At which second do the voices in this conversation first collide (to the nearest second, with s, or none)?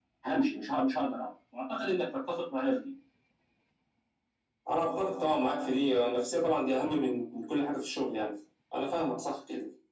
none